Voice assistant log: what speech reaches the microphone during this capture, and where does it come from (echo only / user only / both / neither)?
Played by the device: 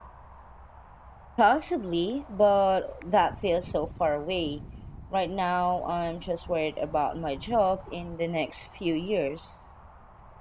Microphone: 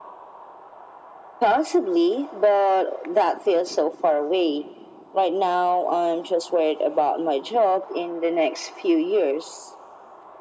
echo only